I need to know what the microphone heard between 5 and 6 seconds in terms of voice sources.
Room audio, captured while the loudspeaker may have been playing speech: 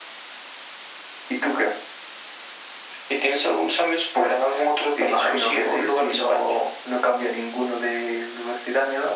echo only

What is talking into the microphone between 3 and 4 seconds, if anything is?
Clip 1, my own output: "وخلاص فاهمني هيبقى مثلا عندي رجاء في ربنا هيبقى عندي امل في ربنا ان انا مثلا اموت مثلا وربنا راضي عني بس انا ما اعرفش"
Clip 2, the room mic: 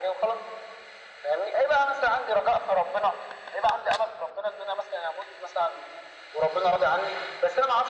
echo only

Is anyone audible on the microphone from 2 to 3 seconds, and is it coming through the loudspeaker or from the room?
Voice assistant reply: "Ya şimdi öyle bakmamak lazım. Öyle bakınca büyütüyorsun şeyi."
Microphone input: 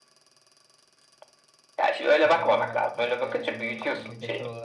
both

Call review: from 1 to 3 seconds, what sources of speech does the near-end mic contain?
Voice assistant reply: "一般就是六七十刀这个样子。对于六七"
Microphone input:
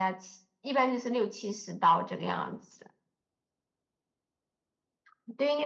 echo only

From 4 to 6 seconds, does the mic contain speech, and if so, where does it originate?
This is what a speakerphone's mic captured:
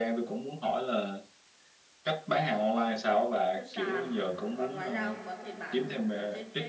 both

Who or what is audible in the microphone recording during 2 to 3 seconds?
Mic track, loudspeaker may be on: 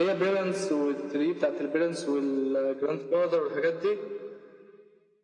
echo only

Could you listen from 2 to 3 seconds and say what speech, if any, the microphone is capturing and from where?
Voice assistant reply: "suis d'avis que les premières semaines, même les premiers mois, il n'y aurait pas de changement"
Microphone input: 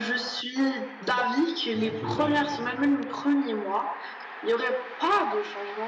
both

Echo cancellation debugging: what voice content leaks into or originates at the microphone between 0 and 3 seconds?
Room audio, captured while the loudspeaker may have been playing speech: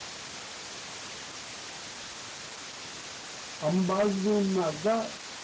neither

